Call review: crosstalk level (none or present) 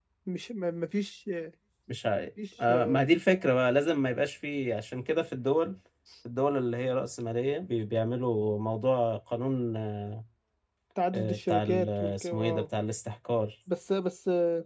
present